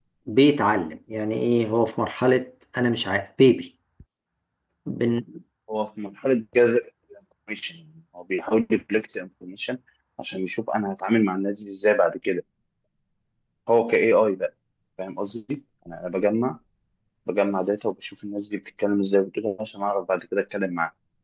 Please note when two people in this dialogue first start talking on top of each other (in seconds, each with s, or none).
none